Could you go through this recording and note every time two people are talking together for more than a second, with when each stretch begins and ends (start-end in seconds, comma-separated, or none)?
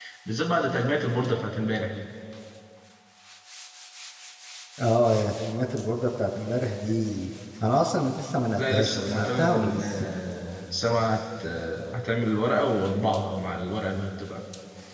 8.6-10.1